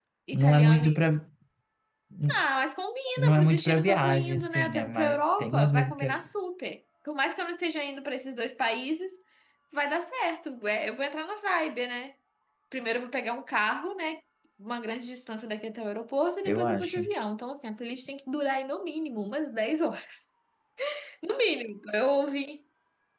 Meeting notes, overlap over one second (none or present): present